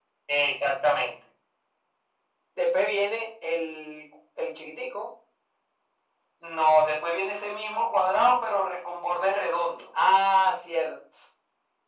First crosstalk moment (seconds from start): none

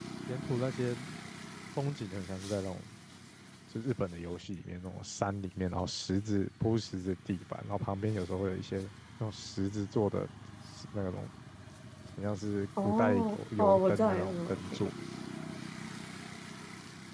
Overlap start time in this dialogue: 13 s

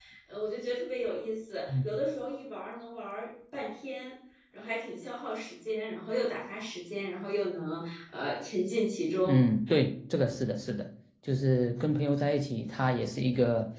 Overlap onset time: none

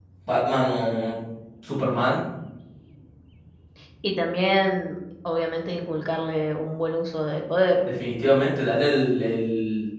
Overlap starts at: none

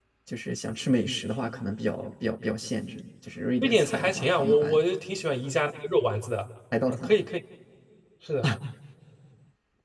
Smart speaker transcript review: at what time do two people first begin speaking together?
4 s

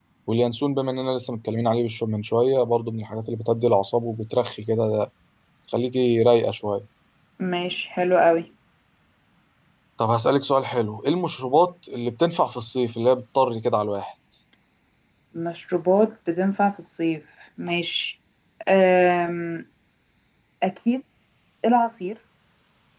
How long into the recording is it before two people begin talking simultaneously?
none

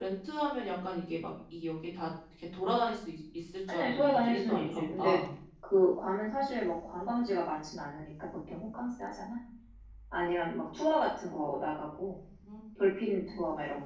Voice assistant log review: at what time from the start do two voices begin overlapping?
4 s

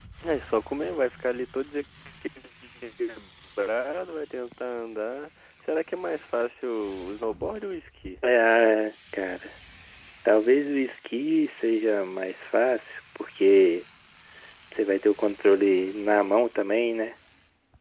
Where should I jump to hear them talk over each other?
none

